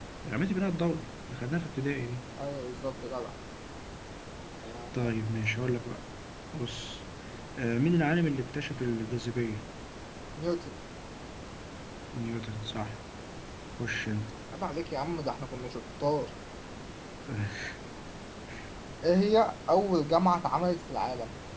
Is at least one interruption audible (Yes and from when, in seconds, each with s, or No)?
No